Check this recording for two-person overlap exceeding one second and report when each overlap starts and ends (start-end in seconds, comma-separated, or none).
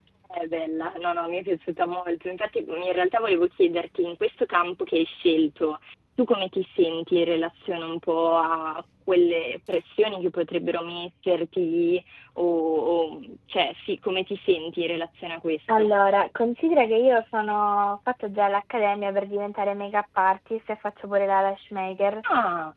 none